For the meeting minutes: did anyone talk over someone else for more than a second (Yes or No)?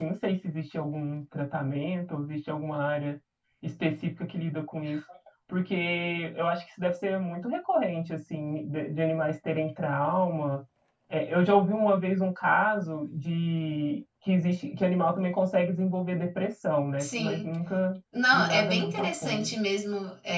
Yes